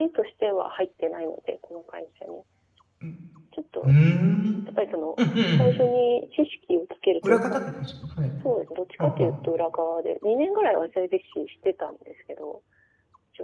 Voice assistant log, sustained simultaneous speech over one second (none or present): none